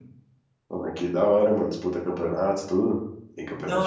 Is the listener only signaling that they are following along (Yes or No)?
No